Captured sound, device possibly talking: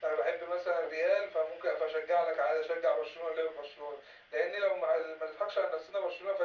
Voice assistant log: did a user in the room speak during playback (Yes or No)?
No